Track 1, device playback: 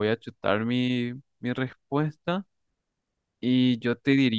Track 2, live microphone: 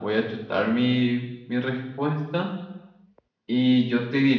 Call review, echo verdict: present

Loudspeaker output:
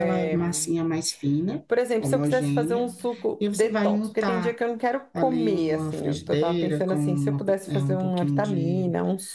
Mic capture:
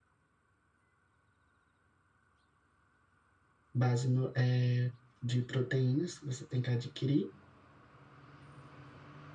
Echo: none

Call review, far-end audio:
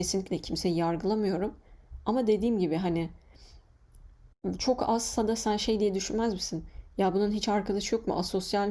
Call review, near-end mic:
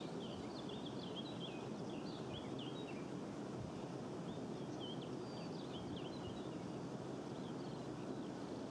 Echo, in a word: none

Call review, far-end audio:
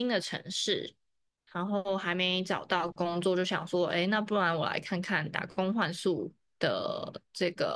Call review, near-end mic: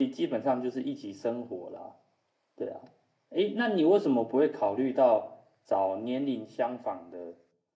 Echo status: none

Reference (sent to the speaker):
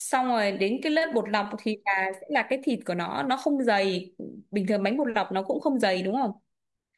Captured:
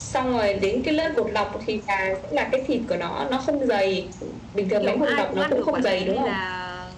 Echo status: present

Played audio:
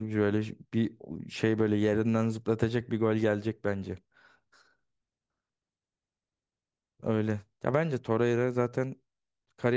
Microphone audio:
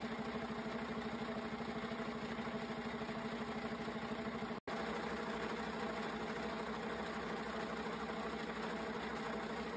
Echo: none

